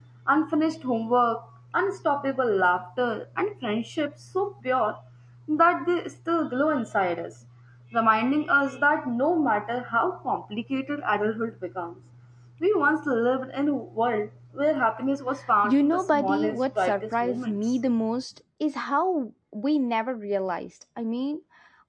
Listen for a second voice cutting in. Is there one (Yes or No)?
Yes